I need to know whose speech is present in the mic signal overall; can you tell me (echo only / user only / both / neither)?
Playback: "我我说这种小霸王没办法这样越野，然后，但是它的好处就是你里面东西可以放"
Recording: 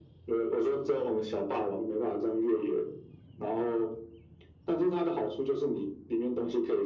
echo only